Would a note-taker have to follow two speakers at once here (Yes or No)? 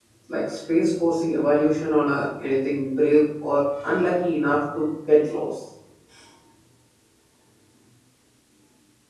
No